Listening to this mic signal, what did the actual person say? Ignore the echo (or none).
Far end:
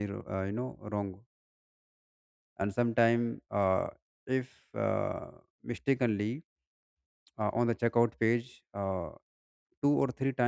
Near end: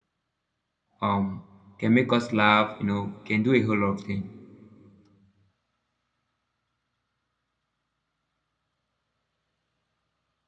um can make us laugh. You know can do a whole lot of things.